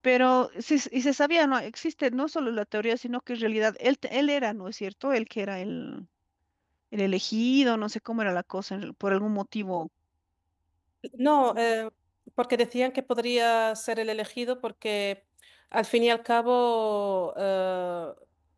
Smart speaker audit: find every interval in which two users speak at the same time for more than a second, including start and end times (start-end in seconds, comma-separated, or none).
none